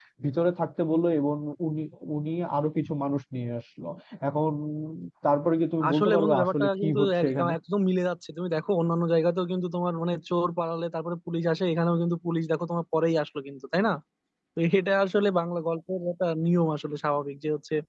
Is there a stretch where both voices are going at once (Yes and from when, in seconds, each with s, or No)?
Yes, from 5.9 s